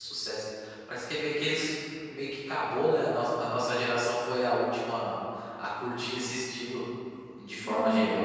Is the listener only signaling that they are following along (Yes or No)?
No